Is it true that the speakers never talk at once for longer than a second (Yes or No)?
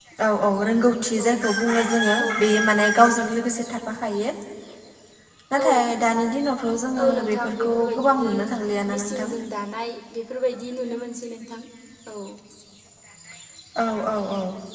No